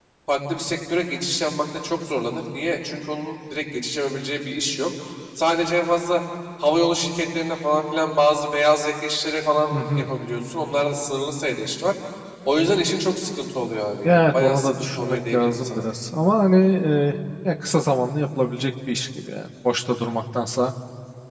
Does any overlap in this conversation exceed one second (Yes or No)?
Yes